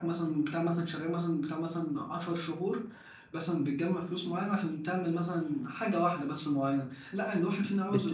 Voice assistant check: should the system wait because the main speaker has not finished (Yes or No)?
No